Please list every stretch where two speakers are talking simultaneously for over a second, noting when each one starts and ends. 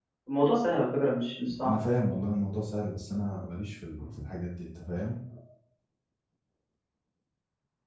none

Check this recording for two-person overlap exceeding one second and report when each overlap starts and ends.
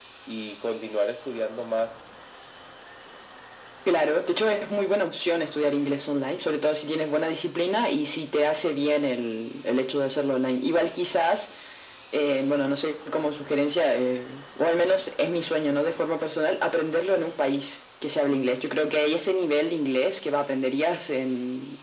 none

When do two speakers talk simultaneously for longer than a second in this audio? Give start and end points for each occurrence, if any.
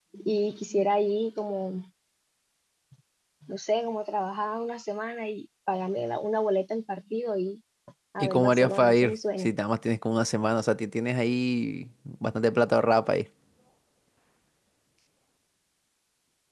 8.2-9.5

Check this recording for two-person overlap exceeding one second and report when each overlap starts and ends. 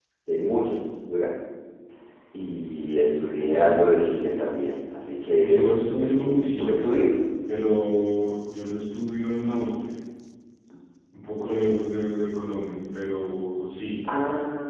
5.4-6.9

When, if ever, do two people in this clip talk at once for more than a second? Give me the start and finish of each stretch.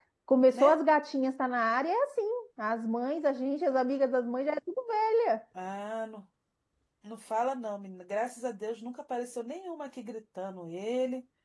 none

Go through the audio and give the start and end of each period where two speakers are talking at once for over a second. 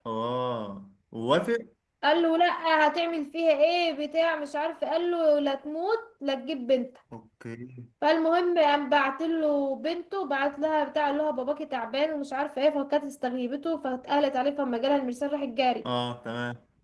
none

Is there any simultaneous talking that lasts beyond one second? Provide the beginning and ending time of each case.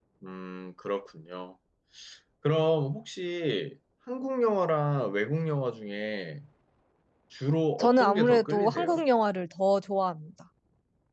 7.8-9.0

